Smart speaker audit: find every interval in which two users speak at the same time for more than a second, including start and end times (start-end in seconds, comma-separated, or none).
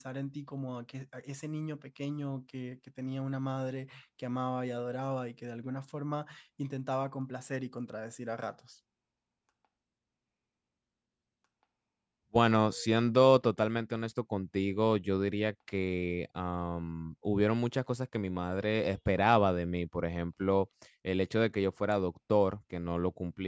none